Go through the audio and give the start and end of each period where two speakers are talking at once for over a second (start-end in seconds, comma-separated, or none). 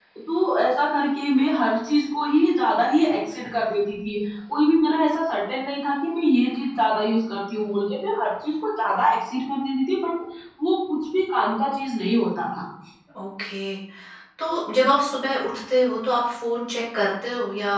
none